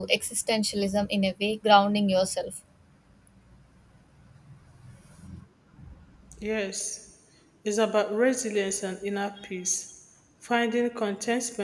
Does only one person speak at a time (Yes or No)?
Yes